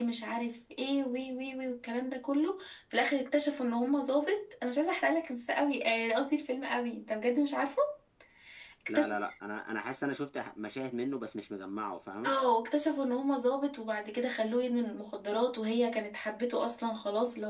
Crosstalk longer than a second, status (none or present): none